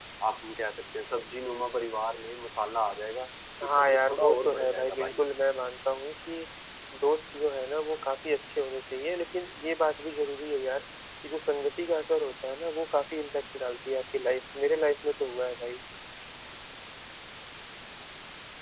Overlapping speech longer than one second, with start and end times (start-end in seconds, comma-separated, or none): 3.6-5.3